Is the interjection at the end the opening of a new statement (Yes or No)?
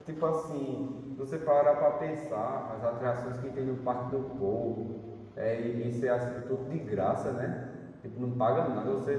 No